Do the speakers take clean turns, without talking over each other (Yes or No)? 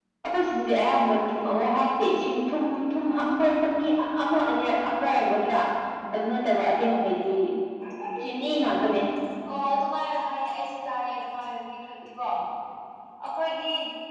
Yes